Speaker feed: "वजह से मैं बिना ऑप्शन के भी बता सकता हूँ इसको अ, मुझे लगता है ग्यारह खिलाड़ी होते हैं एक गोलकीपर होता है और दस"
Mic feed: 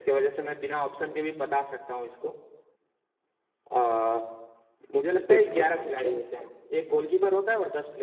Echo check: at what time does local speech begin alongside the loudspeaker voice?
5.2 s

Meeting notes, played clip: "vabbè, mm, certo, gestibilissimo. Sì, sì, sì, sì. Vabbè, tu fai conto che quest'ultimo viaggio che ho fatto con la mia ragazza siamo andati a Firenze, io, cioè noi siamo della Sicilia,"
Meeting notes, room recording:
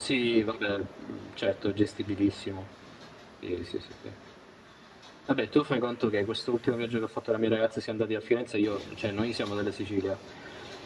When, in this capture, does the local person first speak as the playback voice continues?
none

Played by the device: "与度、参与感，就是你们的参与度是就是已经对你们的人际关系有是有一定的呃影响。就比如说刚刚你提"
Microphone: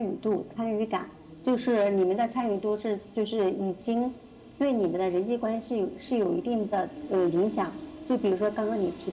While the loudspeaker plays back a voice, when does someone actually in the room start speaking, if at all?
none

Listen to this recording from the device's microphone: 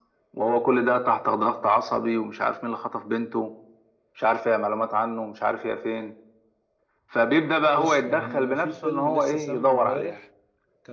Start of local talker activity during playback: 7.7 s

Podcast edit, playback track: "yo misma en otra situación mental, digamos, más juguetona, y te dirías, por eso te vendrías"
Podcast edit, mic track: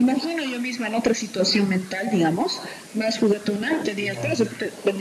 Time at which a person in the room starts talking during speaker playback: 4.0 s

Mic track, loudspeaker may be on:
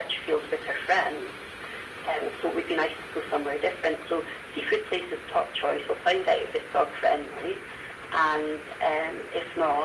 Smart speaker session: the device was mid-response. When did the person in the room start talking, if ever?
none

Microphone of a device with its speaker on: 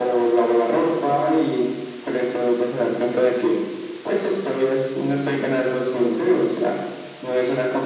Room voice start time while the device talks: none

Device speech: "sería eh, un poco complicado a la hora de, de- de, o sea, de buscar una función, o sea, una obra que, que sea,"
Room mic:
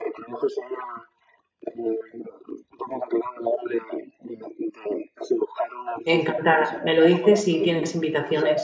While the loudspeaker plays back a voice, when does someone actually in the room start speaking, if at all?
6.1 s

